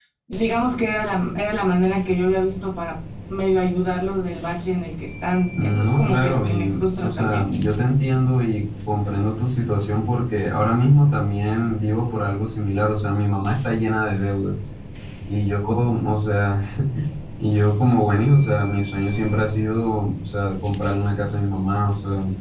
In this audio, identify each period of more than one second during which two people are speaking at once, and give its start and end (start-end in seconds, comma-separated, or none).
5.5-7.5